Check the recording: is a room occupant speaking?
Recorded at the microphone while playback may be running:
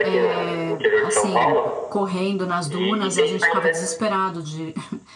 Yes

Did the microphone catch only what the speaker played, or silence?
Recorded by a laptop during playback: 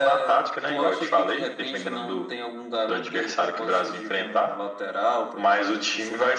Yes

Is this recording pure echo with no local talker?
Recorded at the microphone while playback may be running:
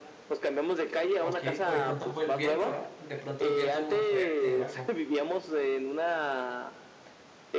No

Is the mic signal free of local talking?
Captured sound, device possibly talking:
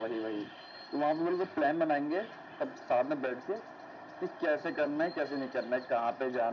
Yes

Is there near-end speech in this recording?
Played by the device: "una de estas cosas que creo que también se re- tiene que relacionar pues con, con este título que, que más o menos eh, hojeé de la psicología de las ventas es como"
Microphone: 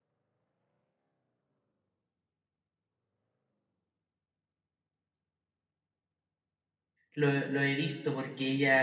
Yes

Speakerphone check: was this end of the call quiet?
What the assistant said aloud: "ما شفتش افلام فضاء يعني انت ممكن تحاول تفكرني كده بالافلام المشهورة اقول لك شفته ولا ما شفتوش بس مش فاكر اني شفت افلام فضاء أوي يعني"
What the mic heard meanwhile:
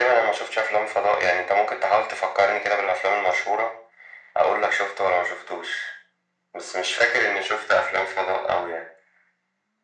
Yes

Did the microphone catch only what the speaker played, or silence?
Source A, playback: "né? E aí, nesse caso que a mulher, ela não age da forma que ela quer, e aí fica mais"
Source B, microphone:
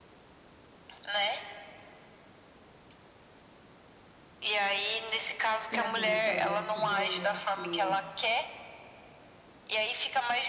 No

